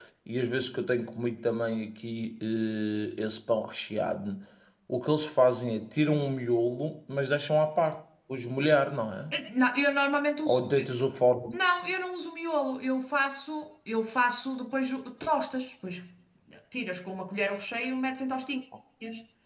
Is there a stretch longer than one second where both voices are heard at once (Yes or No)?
No